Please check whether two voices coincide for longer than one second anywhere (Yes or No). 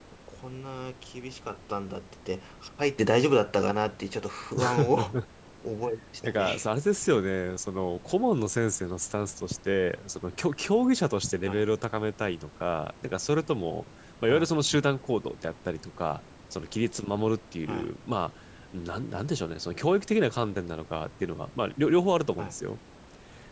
No